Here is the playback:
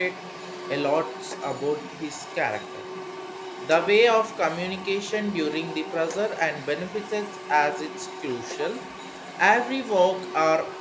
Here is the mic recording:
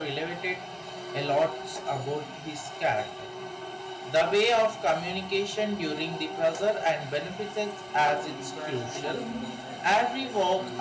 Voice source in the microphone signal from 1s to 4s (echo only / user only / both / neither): echo only